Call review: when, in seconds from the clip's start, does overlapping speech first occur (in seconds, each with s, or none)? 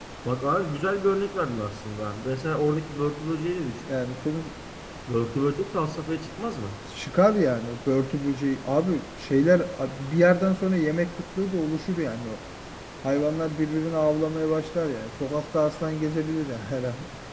none